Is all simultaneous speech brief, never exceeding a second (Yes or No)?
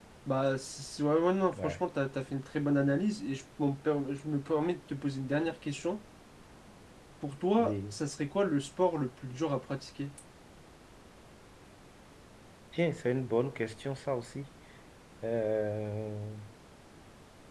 Yes